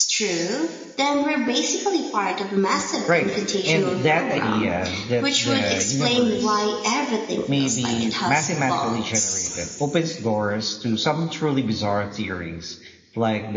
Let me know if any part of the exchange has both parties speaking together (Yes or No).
Yes